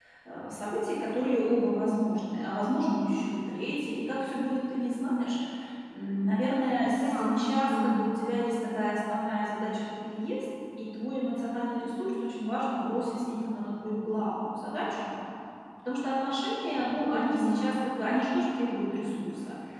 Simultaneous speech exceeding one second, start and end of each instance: 6.8-8.1

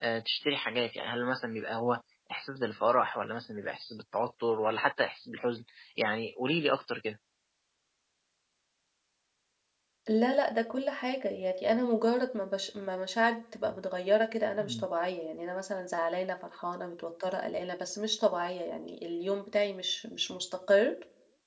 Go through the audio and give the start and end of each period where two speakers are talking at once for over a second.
none

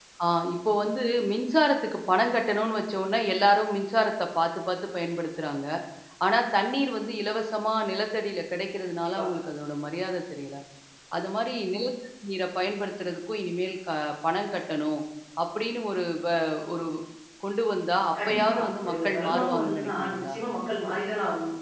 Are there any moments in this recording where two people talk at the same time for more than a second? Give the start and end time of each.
18.3-20.3

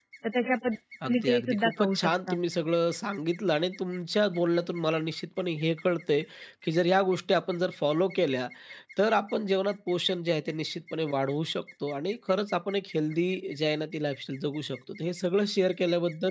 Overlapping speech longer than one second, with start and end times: 1.0-2.4

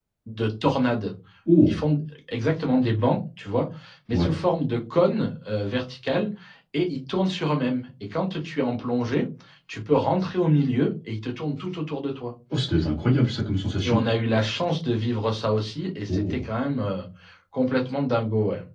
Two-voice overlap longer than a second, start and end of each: none

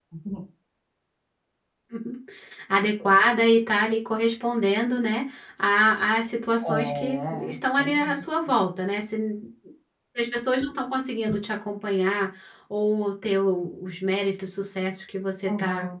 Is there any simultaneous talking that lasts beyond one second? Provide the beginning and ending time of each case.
6.7-8.2

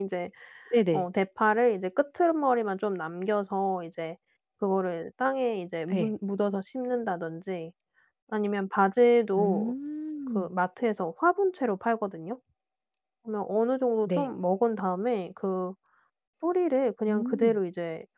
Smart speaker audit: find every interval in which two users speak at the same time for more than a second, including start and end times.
none

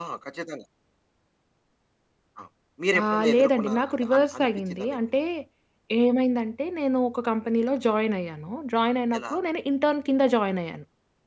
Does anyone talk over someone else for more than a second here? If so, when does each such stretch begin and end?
3.0-5.0

